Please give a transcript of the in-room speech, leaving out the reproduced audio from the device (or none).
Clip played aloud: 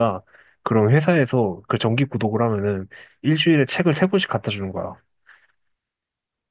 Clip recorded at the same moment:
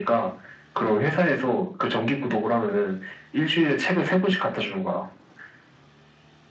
none